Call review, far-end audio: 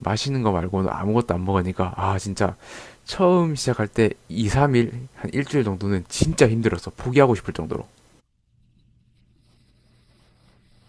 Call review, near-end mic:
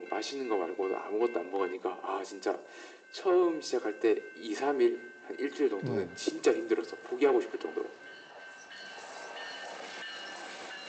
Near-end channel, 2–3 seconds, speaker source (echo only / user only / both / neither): echo only